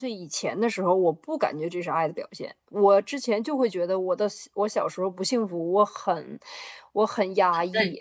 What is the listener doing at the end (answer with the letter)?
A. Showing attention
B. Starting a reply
A